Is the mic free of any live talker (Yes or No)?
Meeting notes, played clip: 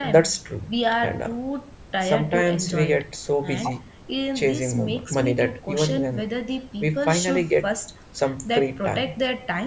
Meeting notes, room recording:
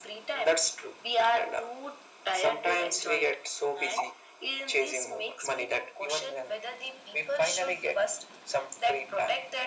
Yes